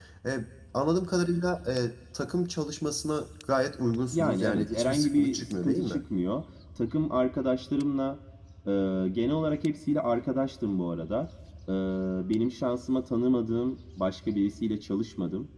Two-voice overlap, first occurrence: 4.1 s

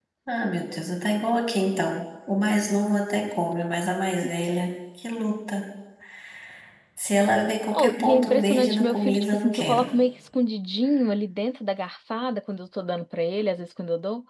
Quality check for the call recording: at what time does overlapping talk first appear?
7.8 s

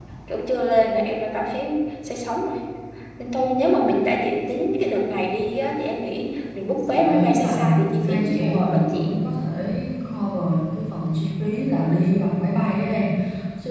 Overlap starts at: 6.9 s

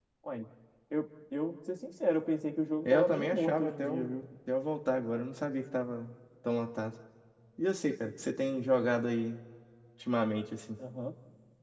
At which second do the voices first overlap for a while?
2.9 s

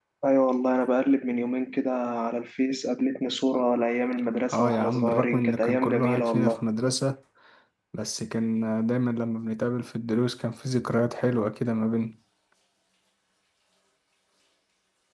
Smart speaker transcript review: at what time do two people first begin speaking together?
4.5 s

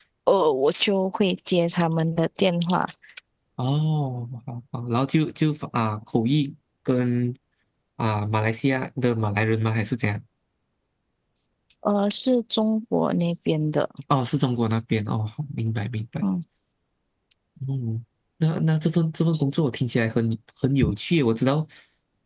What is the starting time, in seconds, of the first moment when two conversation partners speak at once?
none

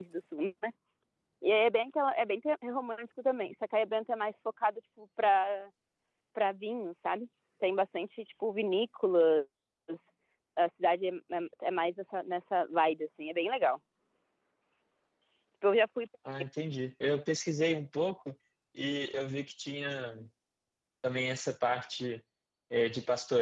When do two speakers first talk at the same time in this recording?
none

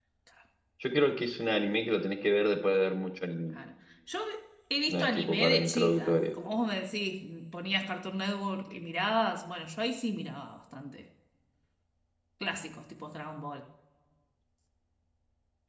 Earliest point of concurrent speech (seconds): 4.9 s

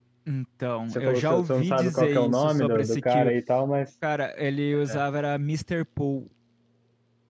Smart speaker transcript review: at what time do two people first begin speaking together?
0.9 s

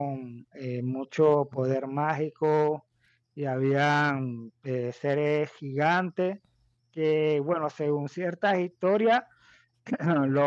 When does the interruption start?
none

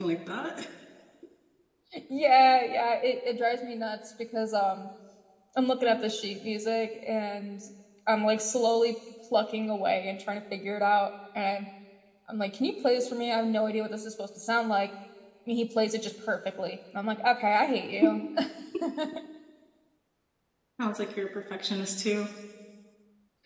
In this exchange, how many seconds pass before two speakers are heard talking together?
none

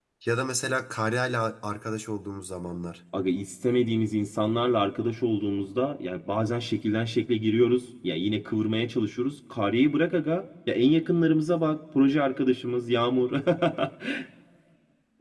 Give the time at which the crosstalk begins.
none

